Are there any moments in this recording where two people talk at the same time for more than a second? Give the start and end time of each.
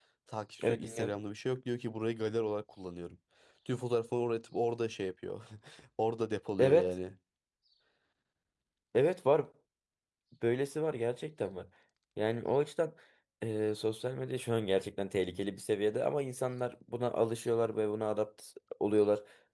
none

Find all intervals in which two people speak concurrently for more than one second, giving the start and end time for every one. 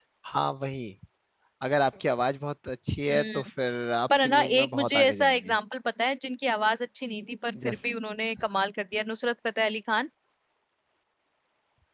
4.2-5.5

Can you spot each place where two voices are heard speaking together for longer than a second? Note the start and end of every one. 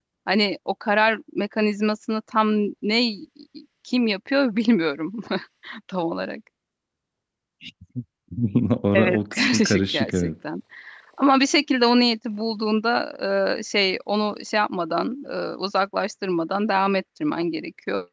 8.9-10.3

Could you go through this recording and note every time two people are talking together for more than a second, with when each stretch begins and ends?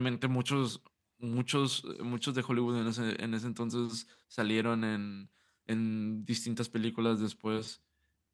none

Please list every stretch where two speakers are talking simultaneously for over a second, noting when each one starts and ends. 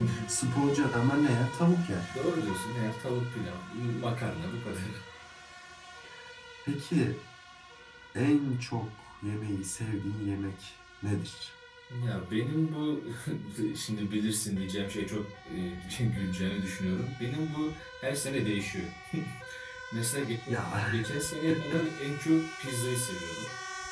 none

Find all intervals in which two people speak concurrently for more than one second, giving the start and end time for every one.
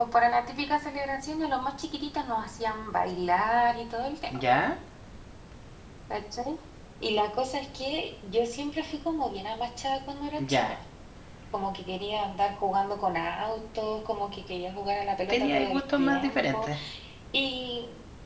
15.3-16.7

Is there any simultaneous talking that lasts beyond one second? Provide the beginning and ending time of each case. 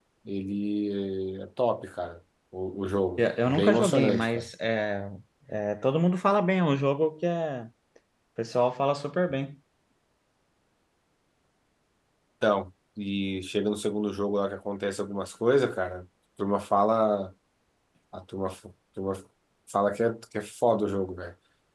3.2-4.5

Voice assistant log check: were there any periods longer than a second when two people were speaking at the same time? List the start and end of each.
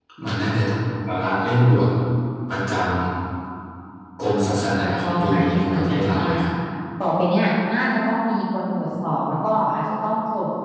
4.8-6.3

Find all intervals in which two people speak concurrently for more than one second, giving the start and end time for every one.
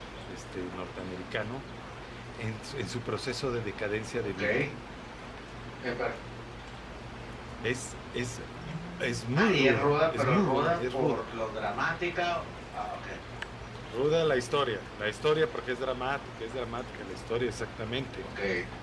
9.4-11.2

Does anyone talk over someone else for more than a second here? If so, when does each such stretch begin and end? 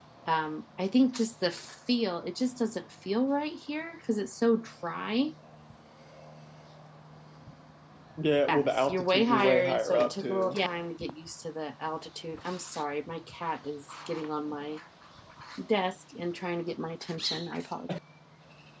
8.5-10.6

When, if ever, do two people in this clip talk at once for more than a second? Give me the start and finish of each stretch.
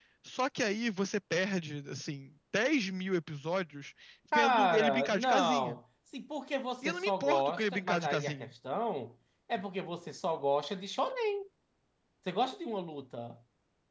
4.3-5.8, 6.8-8.5

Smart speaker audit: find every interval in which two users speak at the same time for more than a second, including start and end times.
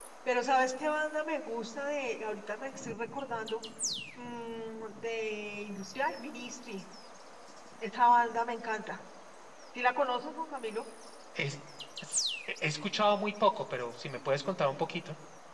none

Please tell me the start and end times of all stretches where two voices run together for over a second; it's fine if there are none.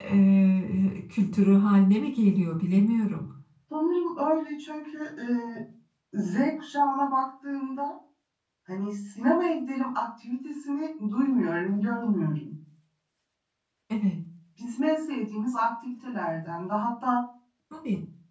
none

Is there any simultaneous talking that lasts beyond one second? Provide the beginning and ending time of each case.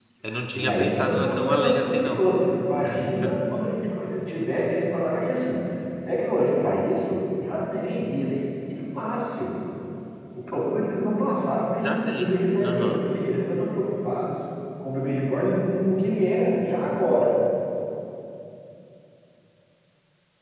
0.6-2.2, 11.8-13.0

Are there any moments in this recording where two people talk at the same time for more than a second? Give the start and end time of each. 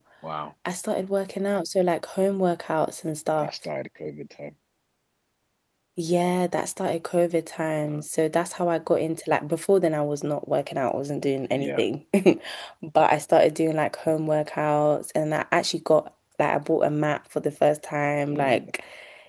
none

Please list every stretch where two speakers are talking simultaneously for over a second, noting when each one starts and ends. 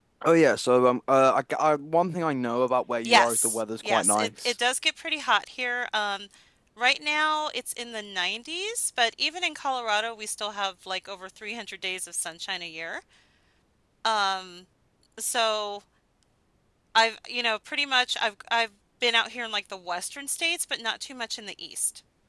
3.0-4.5

